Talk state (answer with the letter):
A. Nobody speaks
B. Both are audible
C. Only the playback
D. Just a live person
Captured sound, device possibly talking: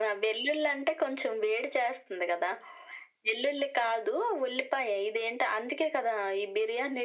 C